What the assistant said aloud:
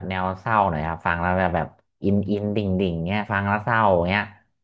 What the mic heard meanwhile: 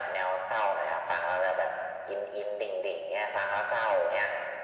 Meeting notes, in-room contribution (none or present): none